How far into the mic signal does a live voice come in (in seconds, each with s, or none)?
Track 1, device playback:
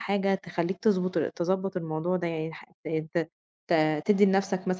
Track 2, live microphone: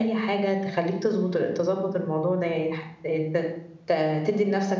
none